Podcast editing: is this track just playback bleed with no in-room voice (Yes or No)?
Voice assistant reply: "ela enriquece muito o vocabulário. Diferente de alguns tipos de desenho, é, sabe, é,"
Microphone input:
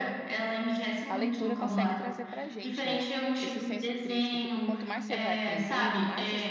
No